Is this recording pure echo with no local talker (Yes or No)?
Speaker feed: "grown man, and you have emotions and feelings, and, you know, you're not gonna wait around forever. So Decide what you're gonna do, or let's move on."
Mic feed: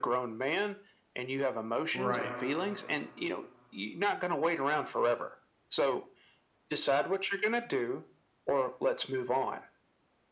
No